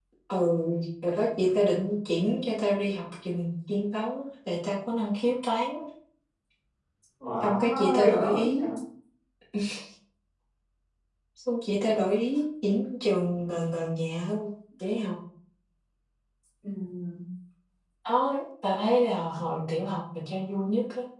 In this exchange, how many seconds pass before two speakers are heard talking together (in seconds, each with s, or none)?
7.4 s